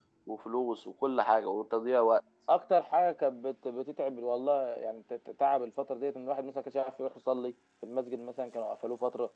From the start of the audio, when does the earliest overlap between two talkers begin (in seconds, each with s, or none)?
none